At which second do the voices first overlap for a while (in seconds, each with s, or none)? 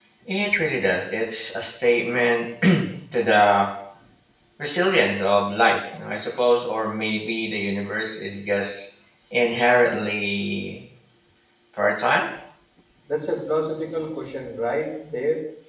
none